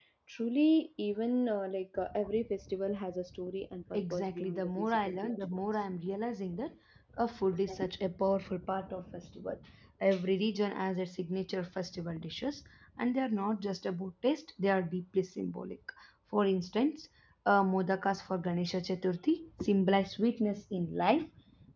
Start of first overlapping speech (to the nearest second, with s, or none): 4 s